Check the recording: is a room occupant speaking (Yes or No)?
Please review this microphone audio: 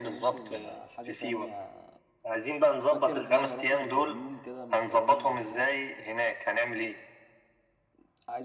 Yes